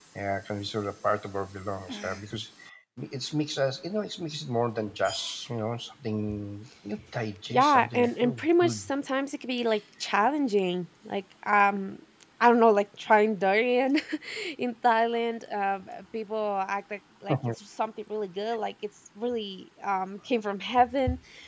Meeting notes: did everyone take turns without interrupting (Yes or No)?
No